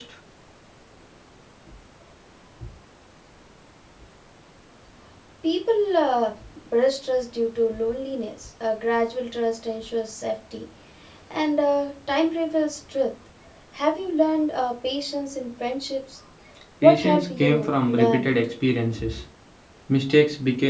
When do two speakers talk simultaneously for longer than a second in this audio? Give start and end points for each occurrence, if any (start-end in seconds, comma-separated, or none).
16.8-18.3